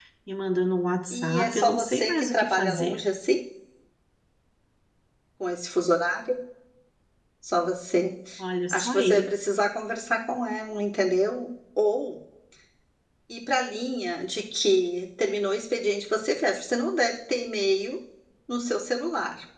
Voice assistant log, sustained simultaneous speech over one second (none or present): present